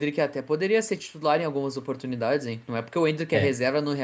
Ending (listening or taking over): listening